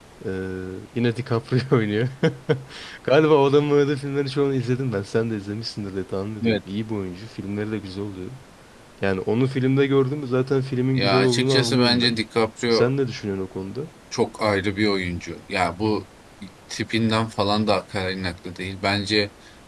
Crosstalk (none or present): present